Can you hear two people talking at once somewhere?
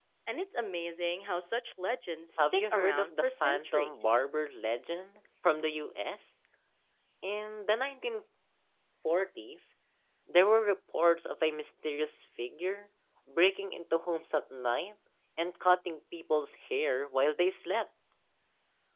Yes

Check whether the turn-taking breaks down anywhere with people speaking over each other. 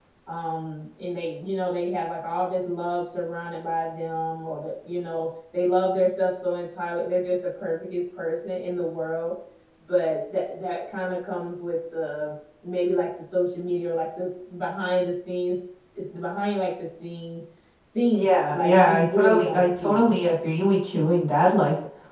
Yes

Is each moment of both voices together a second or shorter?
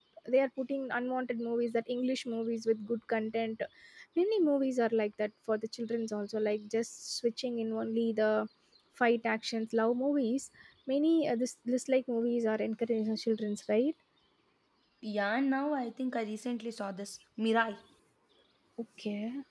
Yes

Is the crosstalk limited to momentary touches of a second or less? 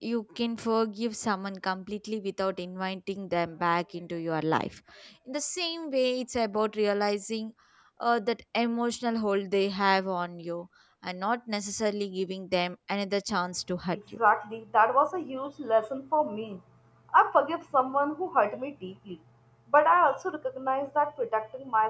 Yes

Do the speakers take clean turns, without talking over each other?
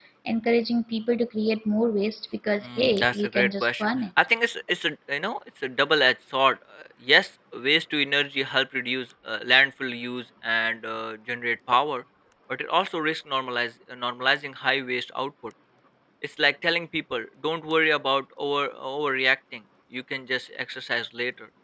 No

